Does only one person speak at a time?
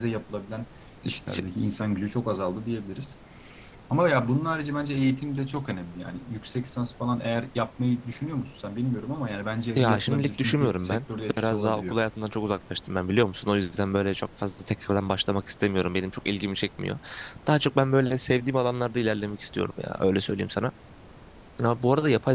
No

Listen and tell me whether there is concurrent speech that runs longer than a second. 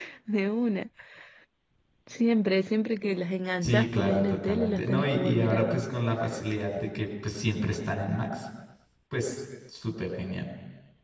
Yes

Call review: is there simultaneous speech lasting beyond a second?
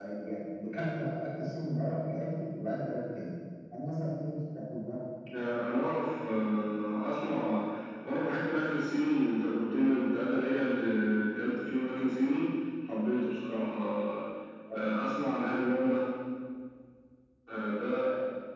No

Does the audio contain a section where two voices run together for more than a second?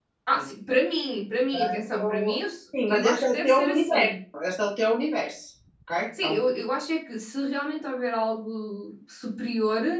Yes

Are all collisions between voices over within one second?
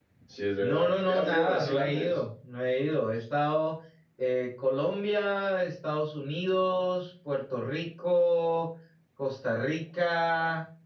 No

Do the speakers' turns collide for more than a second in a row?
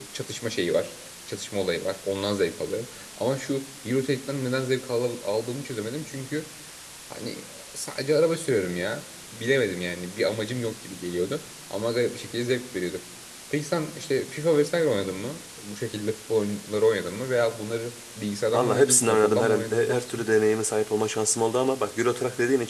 Yes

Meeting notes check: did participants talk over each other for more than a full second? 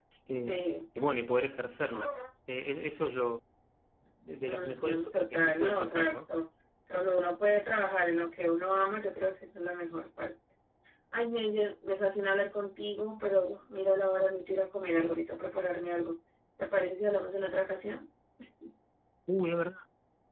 Yes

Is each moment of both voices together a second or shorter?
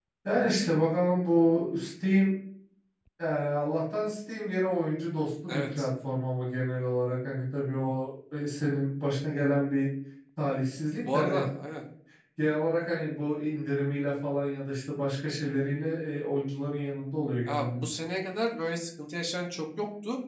Yes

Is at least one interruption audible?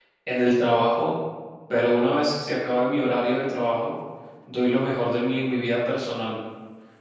No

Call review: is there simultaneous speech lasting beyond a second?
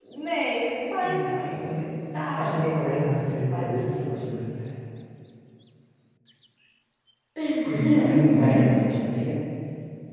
Yes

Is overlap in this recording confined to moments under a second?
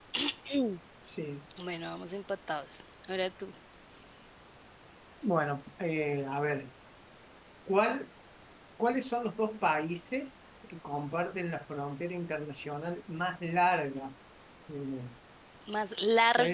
Yes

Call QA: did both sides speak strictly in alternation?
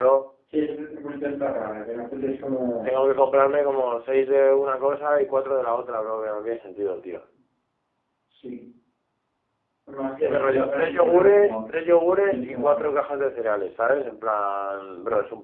No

